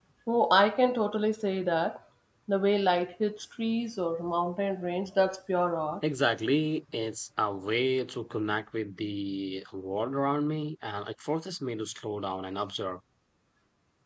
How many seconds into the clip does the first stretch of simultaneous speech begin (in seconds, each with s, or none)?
none